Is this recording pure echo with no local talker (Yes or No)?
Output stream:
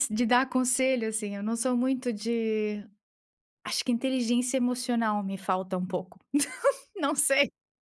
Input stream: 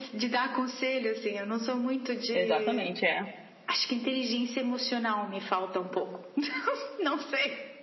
No